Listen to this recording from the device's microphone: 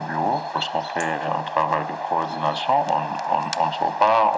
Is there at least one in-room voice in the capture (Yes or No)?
No